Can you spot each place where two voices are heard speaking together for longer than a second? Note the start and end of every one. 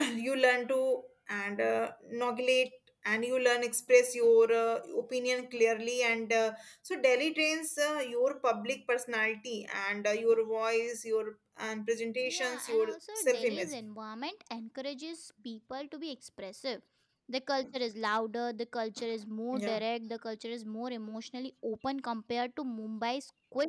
12.2-13.7

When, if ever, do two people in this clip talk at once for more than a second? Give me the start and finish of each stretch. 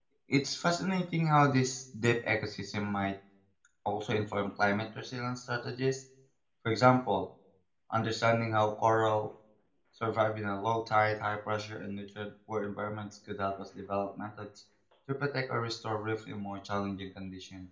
none

